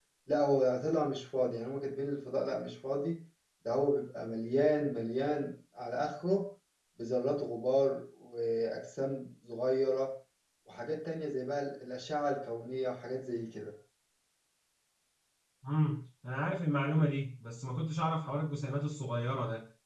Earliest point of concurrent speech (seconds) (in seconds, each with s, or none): none